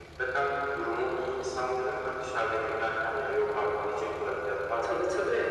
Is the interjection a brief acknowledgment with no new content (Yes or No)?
No